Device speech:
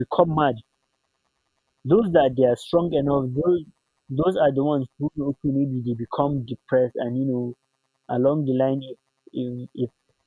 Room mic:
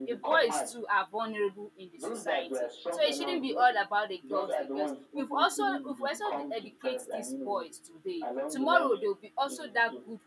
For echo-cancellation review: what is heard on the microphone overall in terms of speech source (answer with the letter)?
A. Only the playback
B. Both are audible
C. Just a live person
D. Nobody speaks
B